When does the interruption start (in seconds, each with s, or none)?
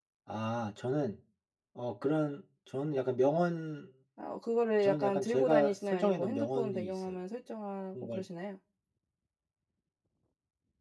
4.8 s